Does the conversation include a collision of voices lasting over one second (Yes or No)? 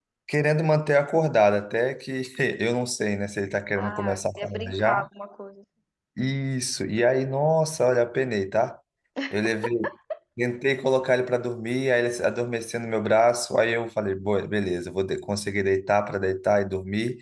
Yes